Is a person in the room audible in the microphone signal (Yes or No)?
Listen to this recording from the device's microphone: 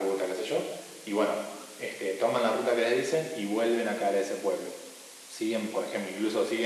No